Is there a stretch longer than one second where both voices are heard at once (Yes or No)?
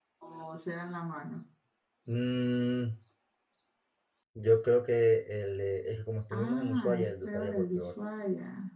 Yes